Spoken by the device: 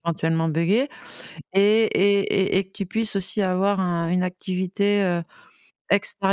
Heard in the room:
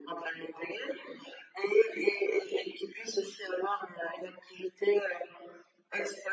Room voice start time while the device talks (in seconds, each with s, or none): none